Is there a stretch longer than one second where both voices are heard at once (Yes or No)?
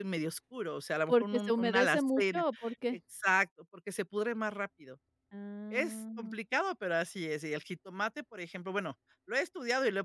Yes